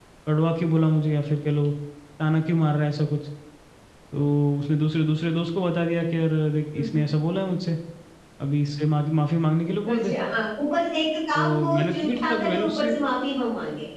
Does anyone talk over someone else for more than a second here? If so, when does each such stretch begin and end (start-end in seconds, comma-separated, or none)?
11.3-12.9